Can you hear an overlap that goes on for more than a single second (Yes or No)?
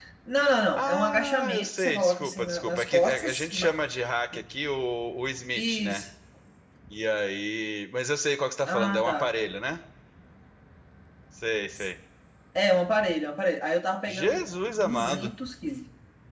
Yes